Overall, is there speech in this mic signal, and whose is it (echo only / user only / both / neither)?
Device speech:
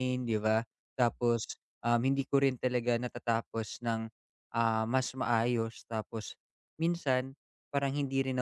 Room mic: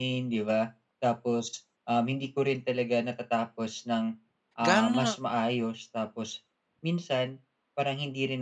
both